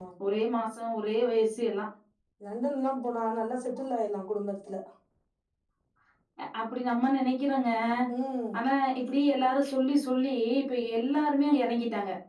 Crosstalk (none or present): none